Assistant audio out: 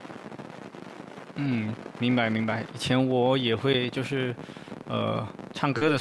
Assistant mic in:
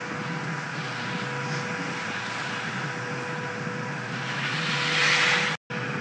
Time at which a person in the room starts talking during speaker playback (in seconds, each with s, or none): none